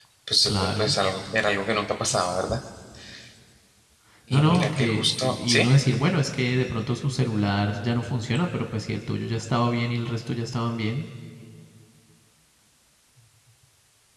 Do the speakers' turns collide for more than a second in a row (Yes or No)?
Yes